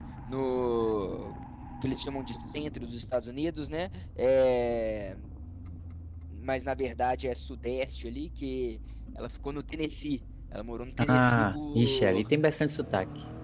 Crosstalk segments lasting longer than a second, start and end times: 11.1-12.3

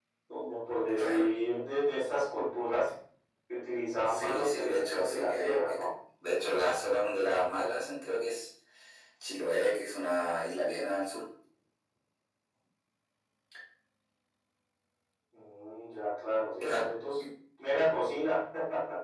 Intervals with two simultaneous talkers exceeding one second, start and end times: 4.1-5.8

